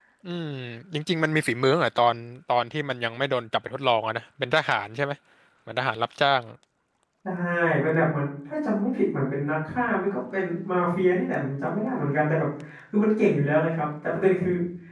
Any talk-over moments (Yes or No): No